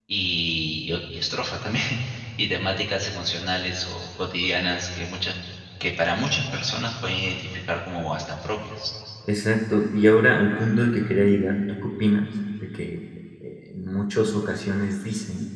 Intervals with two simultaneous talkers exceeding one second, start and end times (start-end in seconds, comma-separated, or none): none